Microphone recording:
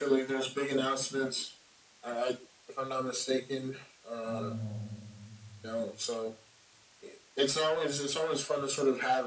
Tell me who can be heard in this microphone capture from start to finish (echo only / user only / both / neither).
both